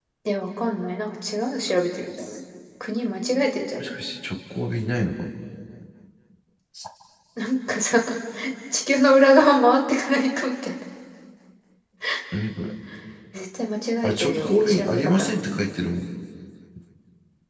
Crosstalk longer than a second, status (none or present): present